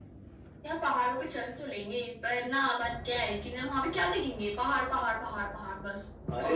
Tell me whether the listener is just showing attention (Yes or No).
No